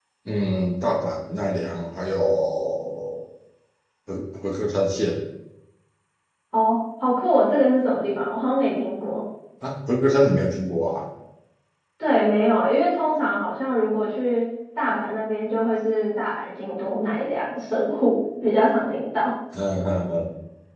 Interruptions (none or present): none